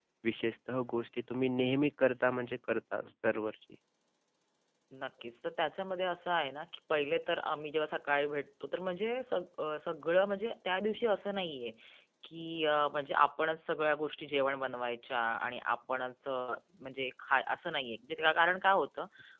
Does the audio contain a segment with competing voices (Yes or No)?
No